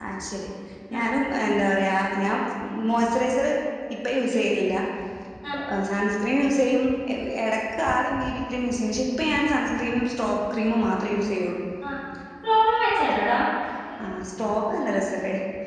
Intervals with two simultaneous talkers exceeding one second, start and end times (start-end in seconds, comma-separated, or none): none